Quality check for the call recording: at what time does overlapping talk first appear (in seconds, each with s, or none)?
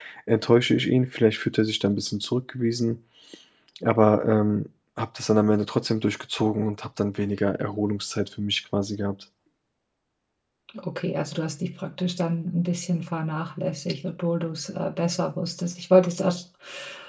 none